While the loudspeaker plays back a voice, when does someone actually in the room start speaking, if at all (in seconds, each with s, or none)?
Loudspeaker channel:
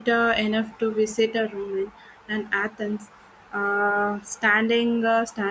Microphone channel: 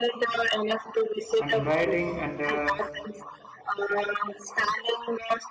1.4 s